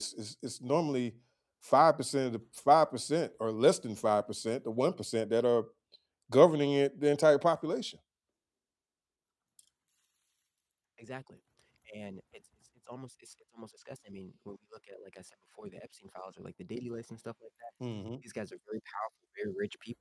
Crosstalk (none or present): none